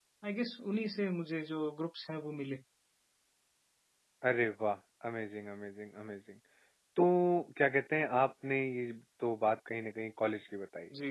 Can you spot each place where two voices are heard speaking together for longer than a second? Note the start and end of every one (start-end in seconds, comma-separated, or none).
none